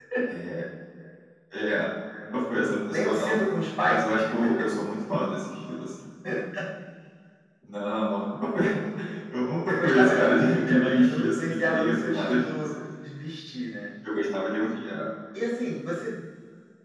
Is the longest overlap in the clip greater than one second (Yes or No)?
Yes